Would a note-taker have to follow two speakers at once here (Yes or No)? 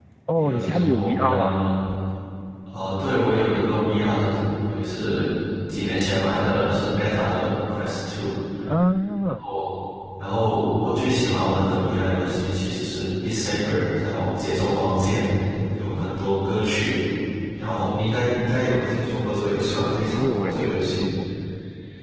Yes